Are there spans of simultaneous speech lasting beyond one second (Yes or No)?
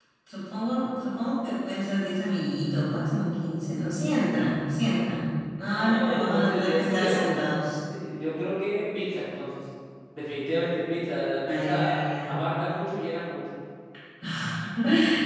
Yes